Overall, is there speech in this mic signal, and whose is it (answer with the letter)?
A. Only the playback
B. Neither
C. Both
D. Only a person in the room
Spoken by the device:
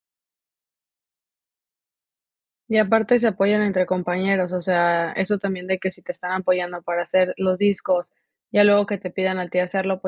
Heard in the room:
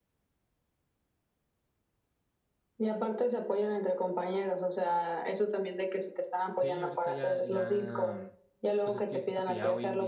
C